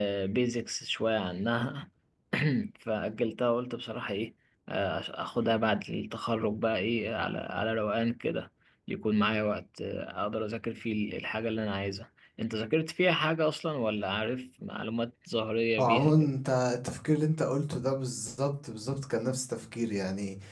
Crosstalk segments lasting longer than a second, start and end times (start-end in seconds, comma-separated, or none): none